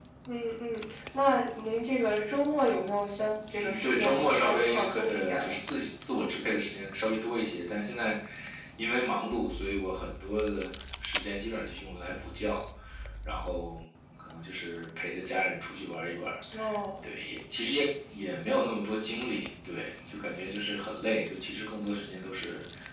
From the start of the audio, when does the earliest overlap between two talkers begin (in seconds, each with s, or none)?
3.5 s